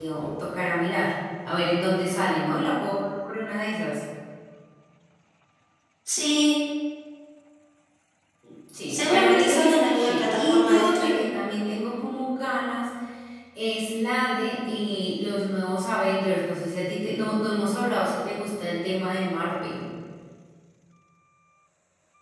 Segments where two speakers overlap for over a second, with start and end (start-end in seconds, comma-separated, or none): 8.9-11.2